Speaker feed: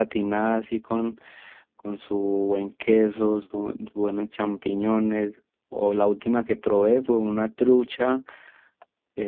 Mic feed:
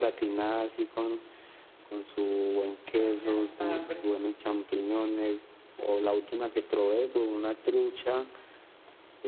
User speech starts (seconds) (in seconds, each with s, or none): 2.9 s